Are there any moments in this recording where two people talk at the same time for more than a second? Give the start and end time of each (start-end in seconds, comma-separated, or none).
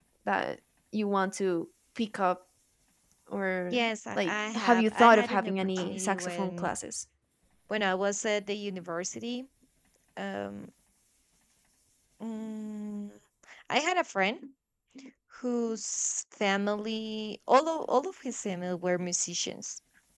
4.2-6.7